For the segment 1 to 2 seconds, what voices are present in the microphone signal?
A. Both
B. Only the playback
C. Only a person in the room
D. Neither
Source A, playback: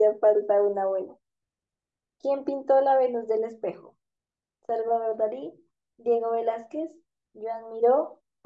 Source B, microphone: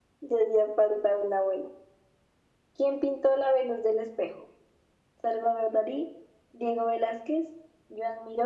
B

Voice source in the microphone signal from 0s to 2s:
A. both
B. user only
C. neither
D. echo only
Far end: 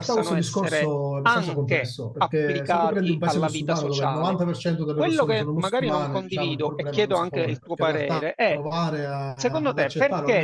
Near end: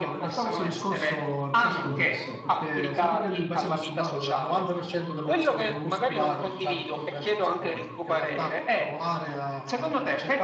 D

